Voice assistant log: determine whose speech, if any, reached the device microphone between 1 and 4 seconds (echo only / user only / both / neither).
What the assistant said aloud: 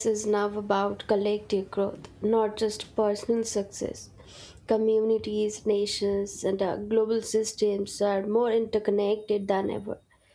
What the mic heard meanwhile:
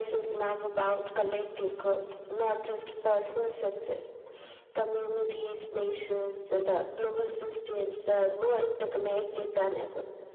echo only